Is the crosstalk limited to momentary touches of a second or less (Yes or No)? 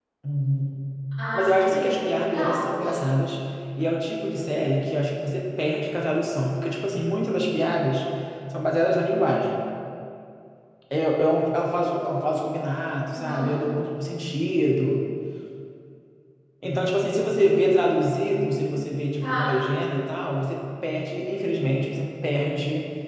No